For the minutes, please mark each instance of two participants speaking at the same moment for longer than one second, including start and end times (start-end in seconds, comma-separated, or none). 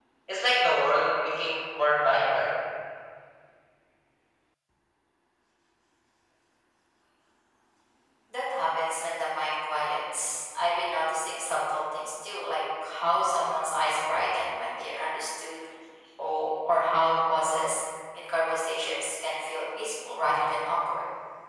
none